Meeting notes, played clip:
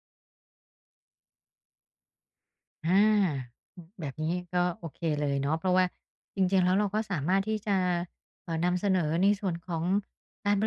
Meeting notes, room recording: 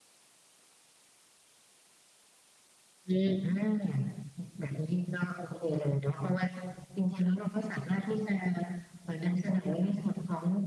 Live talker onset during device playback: 3.1 s

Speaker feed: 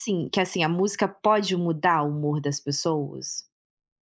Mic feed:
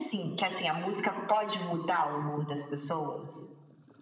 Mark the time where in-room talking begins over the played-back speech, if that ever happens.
none

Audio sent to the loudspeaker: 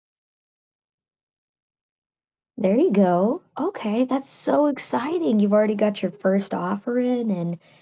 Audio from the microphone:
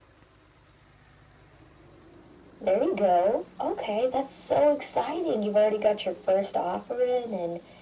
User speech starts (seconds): none

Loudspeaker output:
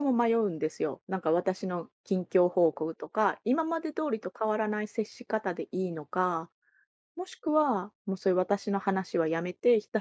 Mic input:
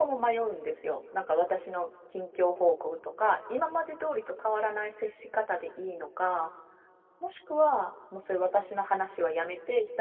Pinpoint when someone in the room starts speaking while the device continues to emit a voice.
none

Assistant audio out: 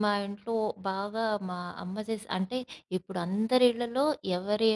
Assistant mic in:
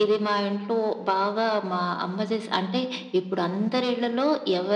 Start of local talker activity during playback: none

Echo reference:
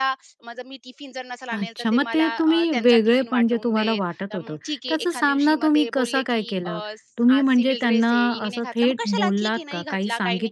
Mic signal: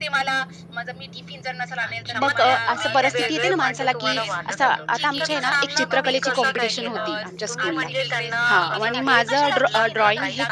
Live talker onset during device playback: 2.2 s

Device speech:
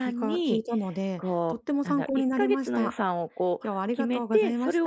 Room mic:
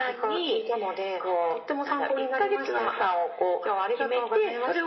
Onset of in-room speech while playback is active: none

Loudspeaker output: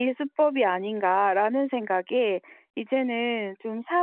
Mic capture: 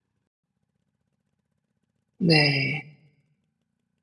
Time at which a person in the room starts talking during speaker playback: 2.2 s

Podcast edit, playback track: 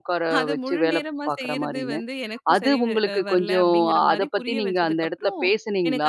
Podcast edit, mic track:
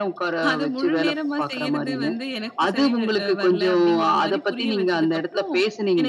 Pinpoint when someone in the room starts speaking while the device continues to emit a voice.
none

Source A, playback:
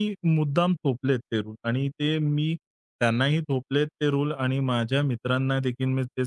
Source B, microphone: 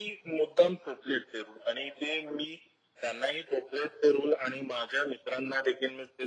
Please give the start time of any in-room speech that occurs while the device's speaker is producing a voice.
none

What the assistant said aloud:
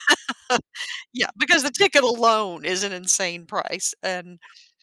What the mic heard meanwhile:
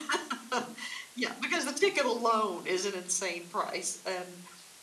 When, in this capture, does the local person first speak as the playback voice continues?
none

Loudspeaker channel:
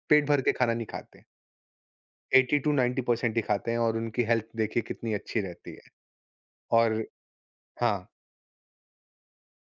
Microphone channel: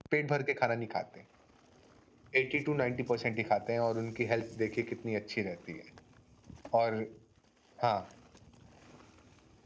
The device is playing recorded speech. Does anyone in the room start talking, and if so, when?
none

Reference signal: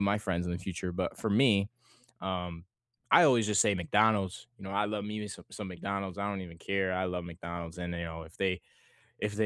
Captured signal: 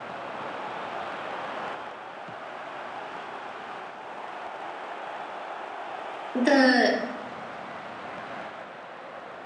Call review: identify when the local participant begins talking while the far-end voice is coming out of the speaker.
6.3 s

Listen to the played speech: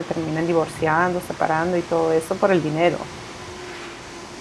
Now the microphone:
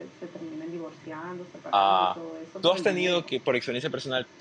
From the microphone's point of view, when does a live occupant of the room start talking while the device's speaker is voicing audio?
1.7 s

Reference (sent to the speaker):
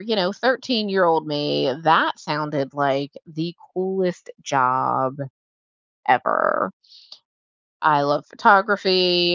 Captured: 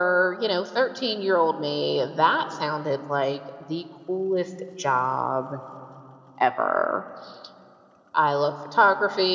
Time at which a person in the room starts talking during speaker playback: none

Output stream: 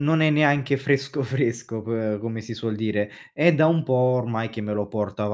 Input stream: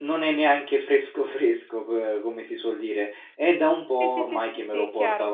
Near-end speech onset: 3.9 s

